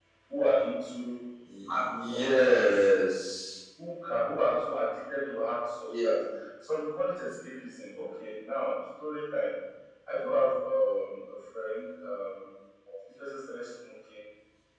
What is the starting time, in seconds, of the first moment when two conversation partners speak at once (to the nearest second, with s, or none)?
2 s